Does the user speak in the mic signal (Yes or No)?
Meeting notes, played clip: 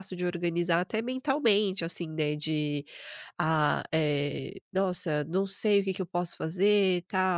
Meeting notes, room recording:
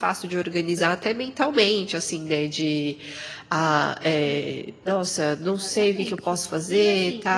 Yes